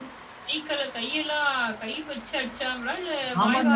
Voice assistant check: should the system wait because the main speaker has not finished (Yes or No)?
No